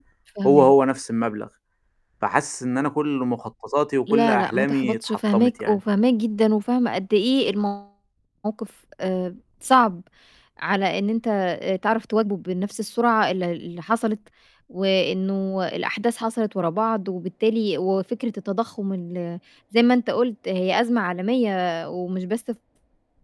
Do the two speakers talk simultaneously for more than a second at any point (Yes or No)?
Yes